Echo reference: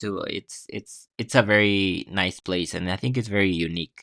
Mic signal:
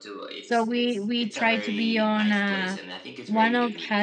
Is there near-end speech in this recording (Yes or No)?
Yes